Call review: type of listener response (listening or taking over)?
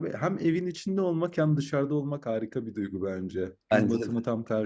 listening